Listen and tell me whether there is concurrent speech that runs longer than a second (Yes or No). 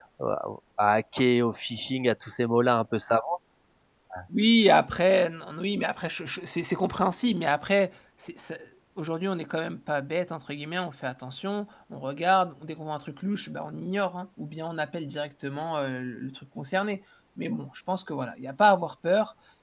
No